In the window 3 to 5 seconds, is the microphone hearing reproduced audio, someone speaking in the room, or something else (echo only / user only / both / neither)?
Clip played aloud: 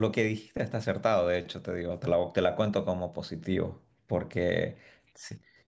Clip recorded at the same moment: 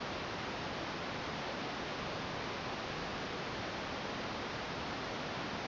neither